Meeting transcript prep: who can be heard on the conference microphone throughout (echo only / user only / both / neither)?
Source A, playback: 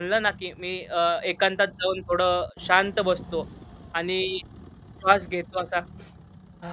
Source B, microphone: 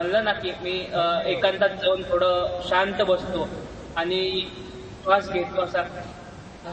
both